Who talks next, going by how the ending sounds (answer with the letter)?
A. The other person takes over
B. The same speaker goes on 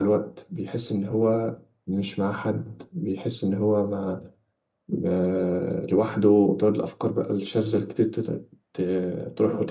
A